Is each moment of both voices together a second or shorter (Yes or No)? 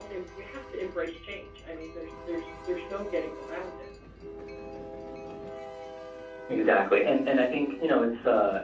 Yes